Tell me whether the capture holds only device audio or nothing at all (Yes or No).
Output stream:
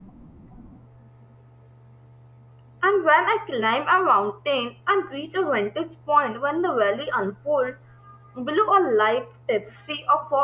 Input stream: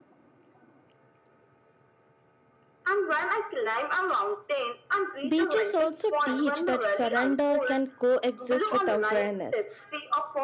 No